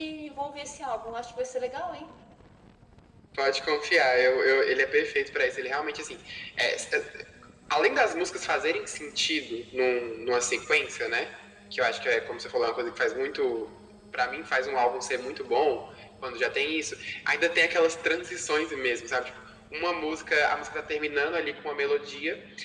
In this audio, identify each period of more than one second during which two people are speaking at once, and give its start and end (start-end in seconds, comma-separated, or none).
none